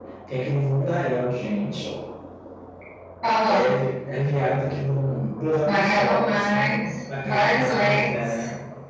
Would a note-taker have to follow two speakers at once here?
Yes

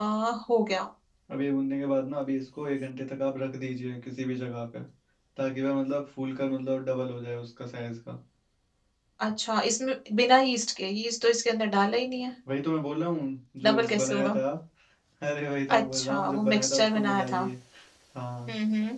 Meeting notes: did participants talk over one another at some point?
Yes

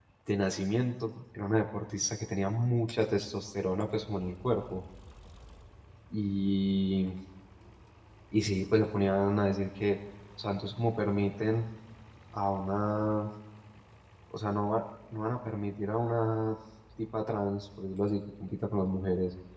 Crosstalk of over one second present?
No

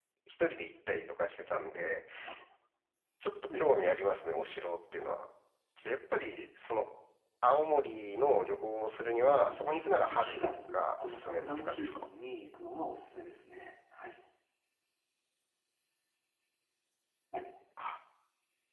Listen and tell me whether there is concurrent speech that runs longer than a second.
Yes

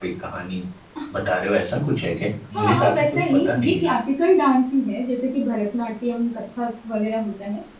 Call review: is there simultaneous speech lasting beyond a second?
Yes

